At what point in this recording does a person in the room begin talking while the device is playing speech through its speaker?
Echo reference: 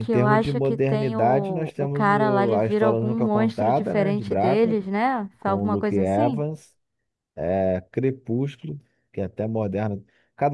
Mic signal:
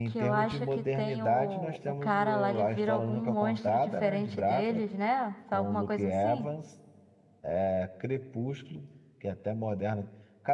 none

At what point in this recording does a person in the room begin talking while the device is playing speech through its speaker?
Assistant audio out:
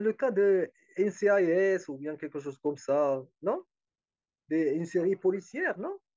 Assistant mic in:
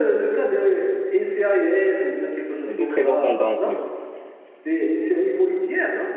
2.6 s

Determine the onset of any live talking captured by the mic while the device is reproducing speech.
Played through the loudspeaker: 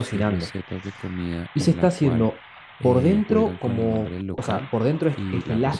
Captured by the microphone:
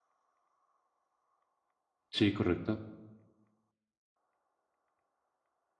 2.1 s

